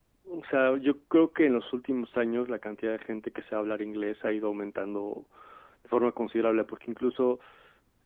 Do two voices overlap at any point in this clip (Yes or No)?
No